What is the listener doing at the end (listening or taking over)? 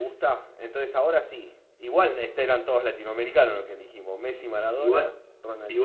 taking over